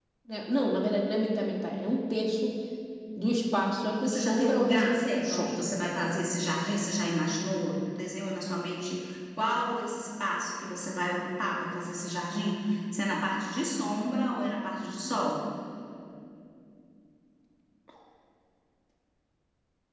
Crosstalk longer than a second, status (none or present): present